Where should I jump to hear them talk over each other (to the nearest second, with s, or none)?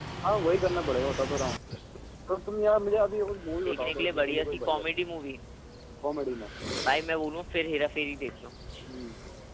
4 s